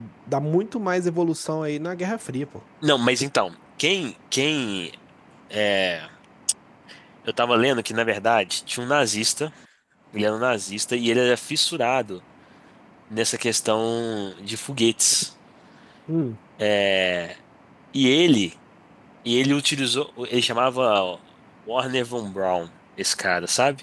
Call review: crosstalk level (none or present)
none